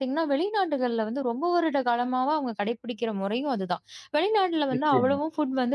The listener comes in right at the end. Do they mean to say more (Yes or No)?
No